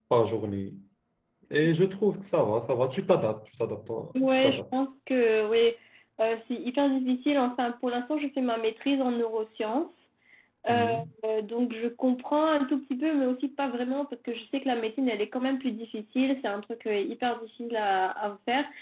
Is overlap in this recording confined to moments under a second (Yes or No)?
Yes